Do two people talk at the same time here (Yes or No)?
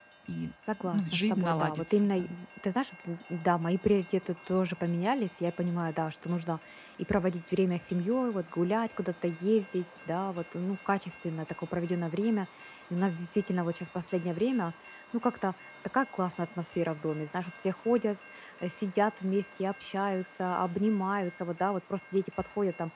Yes